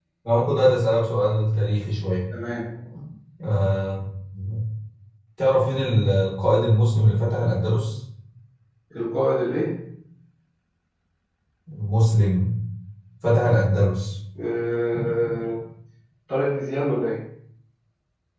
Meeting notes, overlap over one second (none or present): none